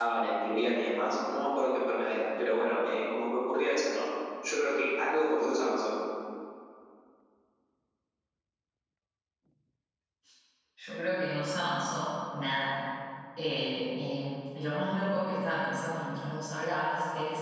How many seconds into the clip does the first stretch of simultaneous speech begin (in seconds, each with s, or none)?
none